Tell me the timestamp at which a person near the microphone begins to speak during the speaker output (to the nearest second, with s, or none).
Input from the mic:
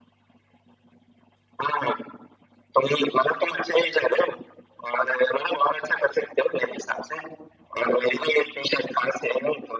none